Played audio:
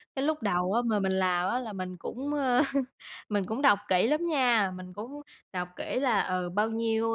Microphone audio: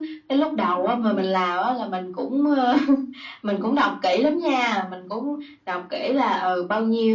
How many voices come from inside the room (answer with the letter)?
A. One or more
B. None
B